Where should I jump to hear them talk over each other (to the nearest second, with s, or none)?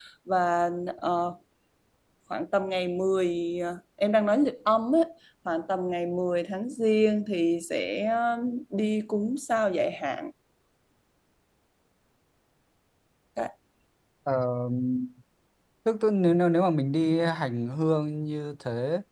none